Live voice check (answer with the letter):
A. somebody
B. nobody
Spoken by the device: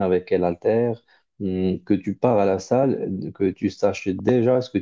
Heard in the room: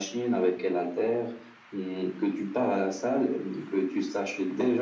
B